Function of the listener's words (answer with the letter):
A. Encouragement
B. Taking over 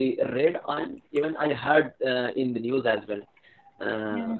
A